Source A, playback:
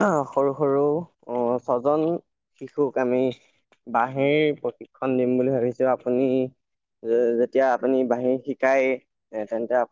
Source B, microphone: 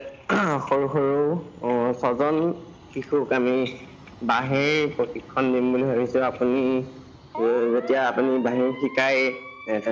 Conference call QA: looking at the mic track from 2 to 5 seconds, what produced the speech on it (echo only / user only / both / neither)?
echo only